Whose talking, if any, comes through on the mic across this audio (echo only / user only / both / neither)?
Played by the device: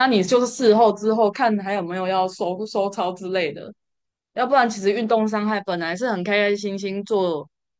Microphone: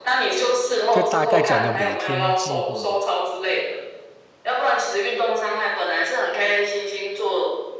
both